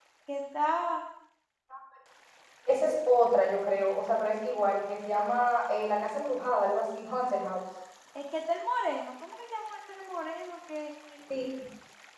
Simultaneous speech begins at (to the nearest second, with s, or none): none